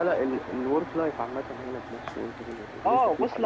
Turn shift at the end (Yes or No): Yes